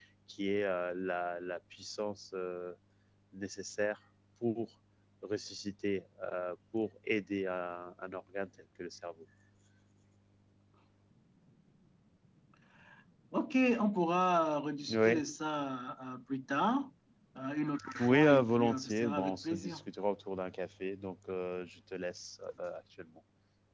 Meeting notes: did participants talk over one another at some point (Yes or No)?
Yes